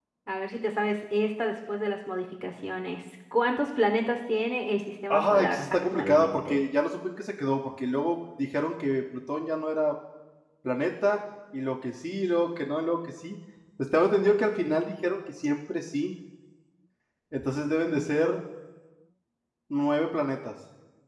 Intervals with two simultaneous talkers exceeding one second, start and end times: 5.1-6.6

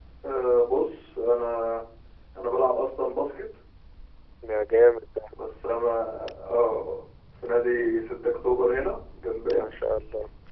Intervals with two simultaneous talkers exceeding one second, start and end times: none

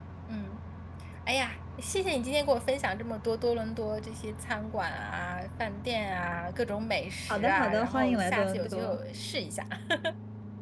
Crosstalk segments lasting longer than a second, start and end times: 7.3-9.0

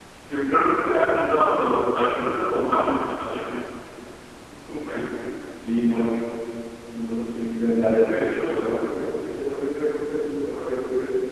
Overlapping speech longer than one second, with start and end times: none

